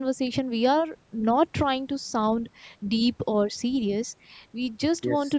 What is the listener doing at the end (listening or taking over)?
listening